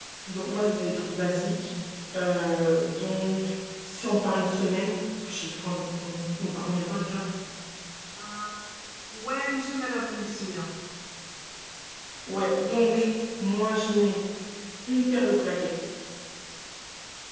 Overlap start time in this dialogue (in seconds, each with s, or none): none